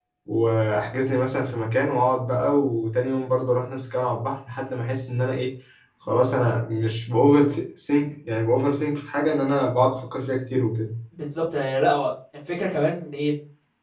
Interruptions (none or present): none